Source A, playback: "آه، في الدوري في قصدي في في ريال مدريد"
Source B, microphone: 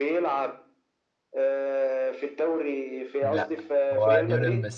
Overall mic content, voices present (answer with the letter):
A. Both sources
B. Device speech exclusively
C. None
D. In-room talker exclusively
A